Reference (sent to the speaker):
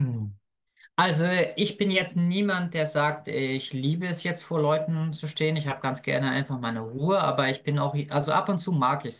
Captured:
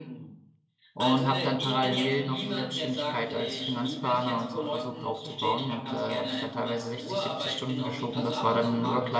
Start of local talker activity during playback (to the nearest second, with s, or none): 1 s